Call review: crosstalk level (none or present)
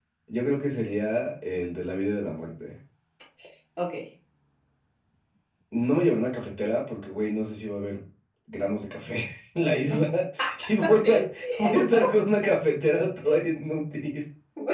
present